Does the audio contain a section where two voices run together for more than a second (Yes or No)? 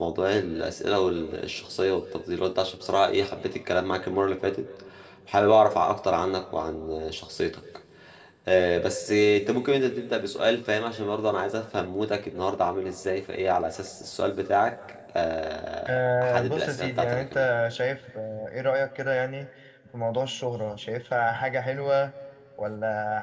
Yes